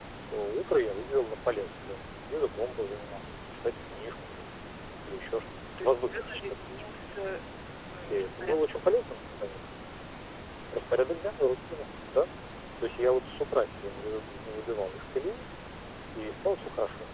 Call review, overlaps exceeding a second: present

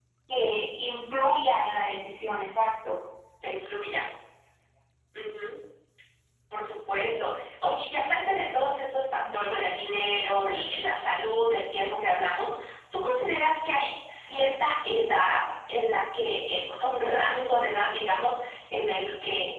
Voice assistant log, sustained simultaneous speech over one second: none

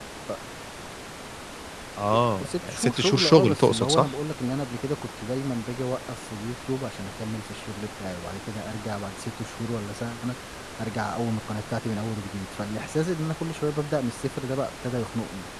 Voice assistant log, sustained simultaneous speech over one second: present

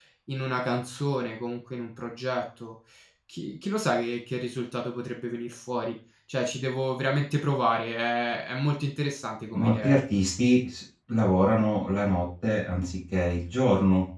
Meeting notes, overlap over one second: none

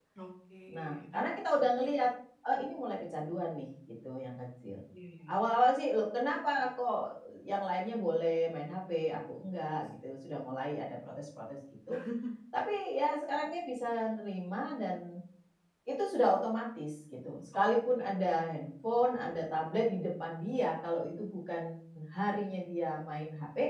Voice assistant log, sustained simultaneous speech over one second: none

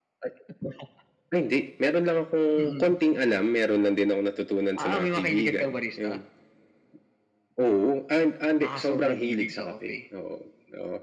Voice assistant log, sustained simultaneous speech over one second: present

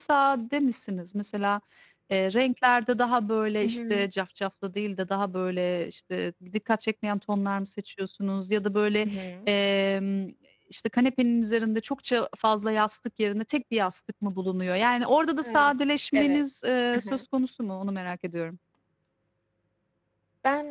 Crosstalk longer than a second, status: none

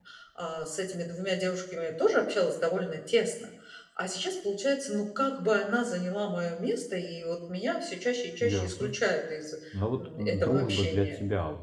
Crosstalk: present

